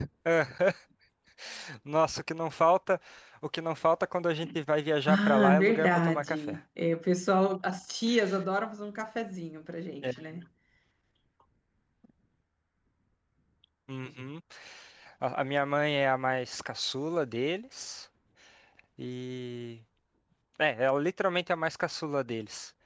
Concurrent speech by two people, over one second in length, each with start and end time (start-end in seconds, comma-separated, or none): 5.1-6.6